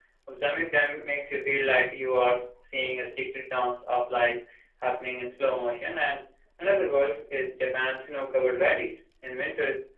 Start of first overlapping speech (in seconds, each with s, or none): none